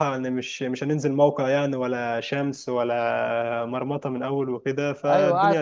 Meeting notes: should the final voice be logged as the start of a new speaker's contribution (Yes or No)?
Yes